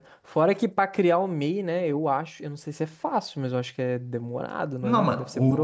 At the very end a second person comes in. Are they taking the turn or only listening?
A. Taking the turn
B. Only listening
A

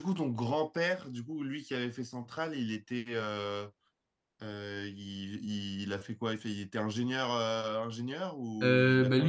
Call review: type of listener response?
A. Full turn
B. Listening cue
A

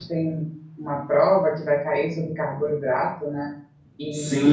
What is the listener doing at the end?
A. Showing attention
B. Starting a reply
B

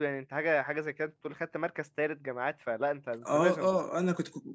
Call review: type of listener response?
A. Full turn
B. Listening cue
A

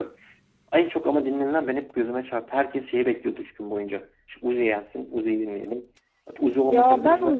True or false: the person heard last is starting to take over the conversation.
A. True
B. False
A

